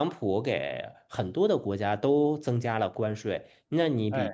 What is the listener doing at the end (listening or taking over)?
listening